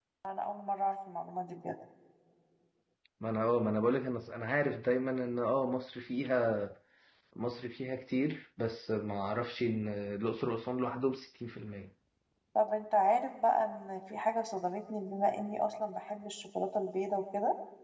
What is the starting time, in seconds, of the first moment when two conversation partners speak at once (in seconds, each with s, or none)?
none